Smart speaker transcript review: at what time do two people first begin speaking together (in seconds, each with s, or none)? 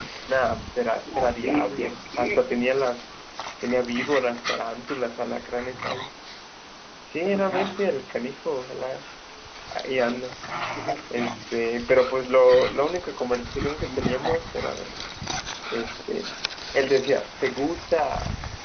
1.2 s